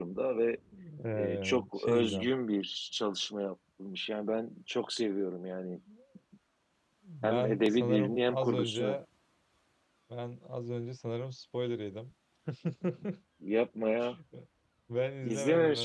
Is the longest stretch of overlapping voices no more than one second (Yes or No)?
No